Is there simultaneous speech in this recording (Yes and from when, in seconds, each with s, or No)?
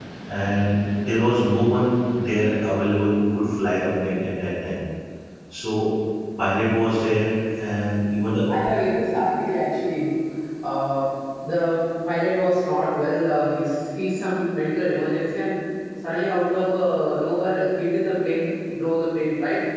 No